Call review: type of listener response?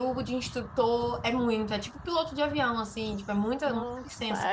taking over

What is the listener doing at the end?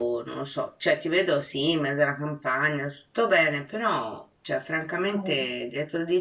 listening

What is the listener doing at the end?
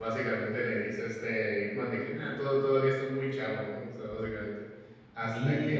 listening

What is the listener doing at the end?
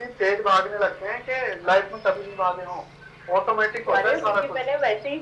taking over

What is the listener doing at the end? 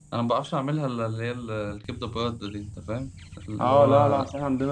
taking over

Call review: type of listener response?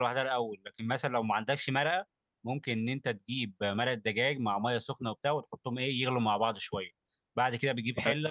listening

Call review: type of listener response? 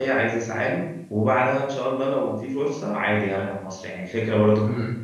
listening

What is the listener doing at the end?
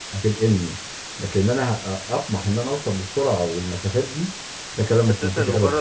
taking over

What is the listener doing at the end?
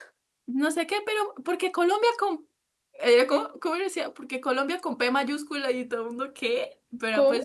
listening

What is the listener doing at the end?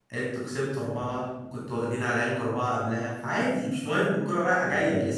taking over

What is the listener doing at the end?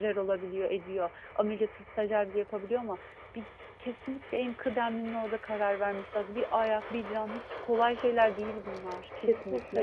taking over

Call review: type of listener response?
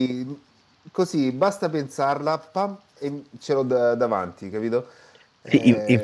taking over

